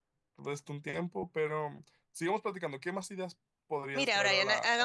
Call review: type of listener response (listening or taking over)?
taking over